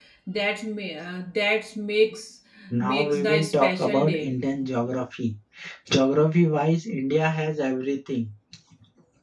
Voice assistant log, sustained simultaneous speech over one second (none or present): present